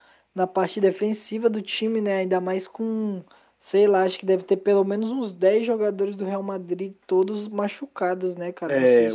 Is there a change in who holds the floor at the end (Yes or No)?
Yes